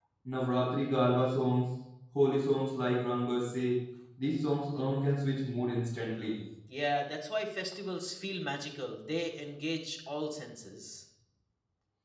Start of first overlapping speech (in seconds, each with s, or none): none